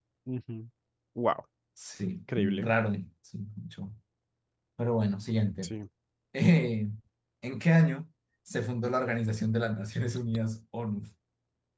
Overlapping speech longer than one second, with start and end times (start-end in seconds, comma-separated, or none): none